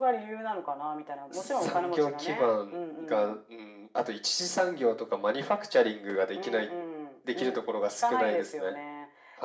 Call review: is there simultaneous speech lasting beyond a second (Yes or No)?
Yes